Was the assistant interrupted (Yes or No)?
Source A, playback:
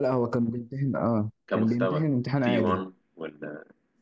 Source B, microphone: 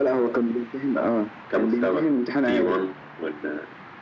No